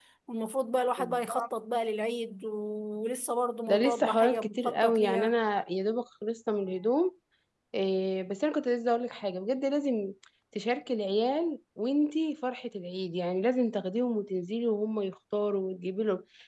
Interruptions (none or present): present